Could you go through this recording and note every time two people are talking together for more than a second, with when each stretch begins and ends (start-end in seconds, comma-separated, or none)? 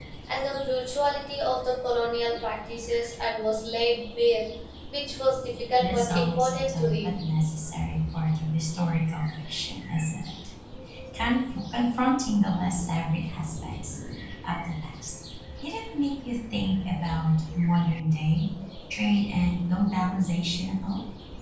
5.8-7.1